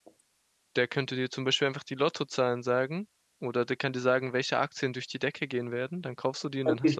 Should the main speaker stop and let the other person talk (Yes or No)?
Yes